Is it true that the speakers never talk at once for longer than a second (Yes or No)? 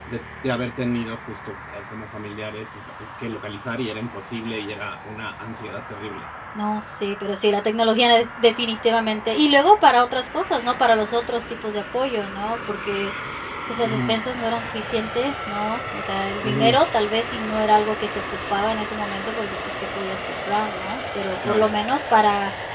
Yes